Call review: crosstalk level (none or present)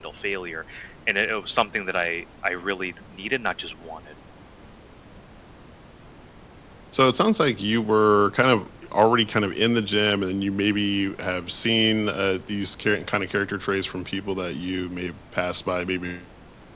none